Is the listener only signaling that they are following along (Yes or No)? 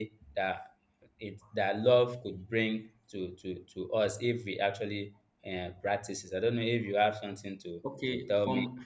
No